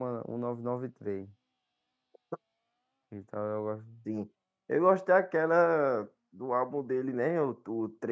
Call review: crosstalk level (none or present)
none